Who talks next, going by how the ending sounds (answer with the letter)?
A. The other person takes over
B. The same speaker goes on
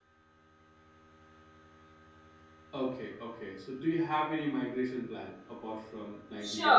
A